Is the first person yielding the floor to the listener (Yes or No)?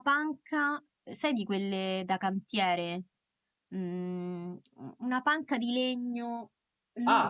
Yes